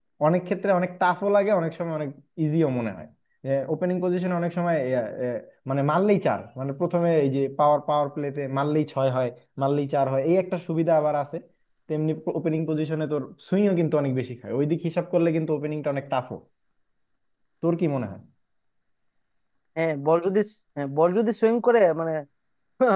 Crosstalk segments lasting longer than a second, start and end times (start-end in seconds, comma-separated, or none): none